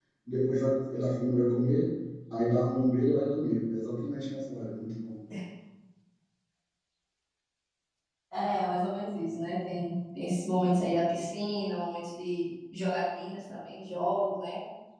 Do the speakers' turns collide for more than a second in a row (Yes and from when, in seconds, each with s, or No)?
No